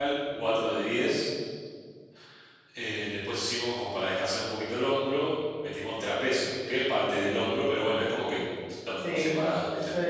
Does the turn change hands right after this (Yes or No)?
Yes